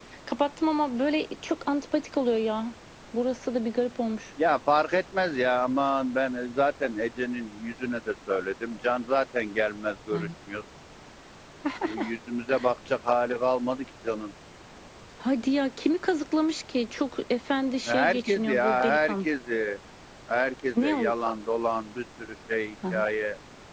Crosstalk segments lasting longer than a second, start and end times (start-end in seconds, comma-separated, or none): 17.9-19.3